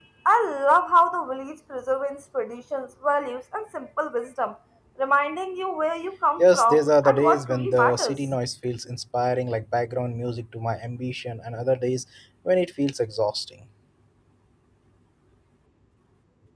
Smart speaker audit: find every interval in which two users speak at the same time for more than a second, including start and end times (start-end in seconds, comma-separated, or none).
6.4-8.2